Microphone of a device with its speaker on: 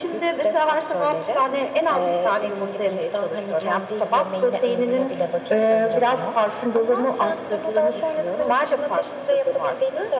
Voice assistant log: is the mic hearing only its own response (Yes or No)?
Yes